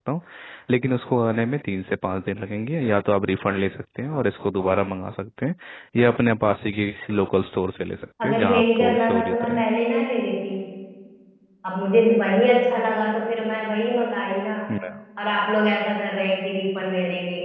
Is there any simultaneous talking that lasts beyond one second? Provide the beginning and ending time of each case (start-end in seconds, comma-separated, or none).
8.2-9.4